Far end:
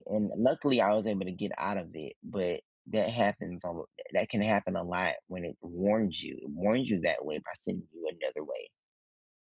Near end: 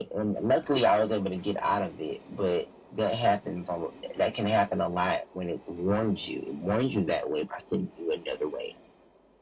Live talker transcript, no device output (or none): none